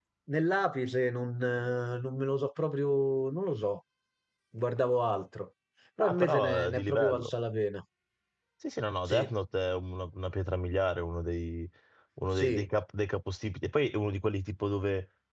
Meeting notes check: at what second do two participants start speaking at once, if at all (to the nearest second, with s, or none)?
6 s